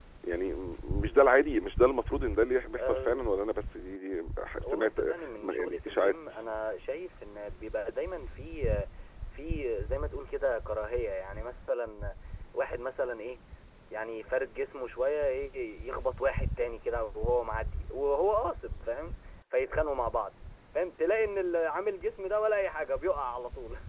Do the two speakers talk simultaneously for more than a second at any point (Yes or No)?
Yes